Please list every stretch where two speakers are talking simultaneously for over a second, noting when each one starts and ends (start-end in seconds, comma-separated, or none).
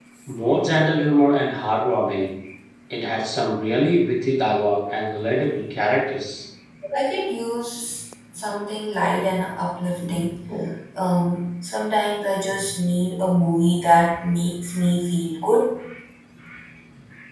none